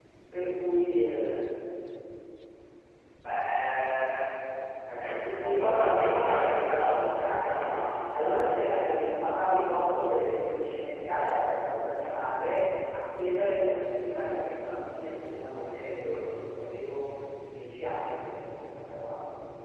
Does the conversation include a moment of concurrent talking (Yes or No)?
Yes